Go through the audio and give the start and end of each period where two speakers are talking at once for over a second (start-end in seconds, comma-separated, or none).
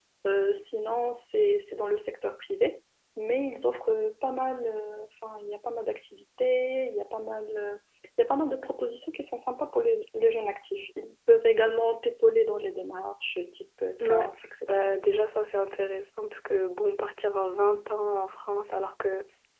none